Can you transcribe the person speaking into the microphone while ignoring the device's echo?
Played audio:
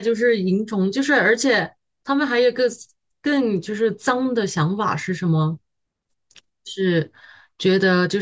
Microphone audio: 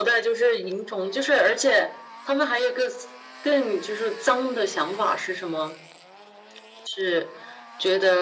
none

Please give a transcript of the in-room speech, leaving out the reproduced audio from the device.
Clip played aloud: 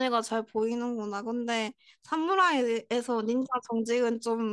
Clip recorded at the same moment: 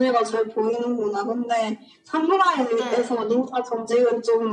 네.

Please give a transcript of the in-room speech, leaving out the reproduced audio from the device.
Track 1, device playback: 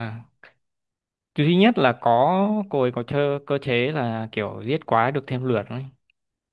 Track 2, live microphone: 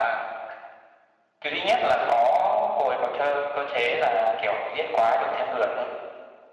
none

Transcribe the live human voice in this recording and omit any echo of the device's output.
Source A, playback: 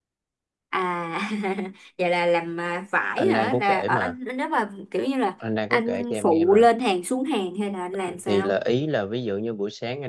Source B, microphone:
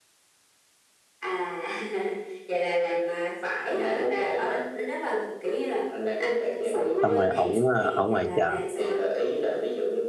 xong rồi ổng ờ, ở ngoài chợ

